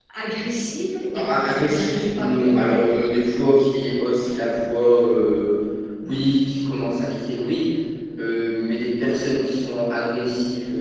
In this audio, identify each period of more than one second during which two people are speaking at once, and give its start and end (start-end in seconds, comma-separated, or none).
1.1-2.8